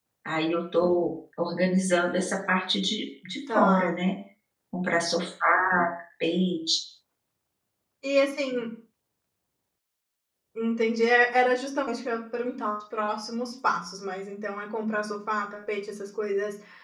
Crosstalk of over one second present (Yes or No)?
No